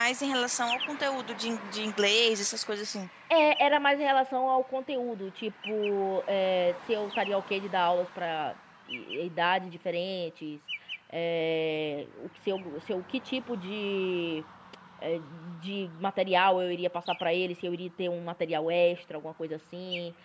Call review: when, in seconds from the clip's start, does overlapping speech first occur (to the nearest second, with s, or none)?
none